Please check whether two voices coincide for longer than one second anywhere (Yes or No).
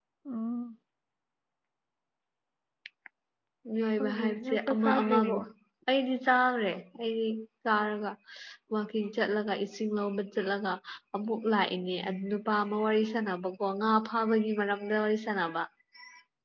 Yes